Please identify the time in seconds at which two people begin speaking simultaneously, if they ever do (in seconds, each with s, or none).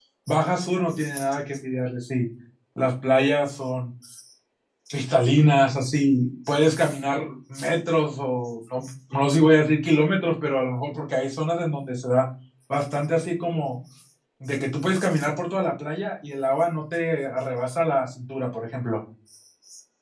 none